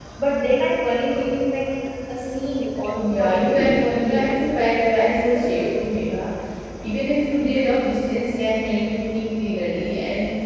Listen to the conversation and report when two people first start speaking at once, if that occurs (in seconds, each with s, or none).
2.9 s